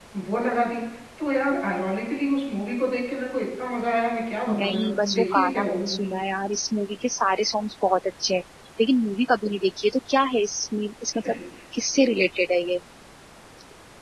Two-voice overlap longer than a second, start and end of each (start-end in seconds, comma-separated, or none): 4.6-6.1